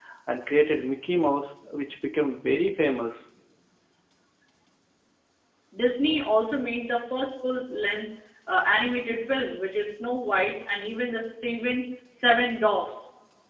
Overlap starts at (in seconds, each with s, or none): none